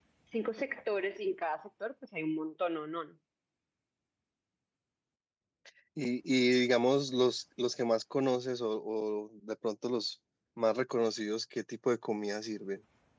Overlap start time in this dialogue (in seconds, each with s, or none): none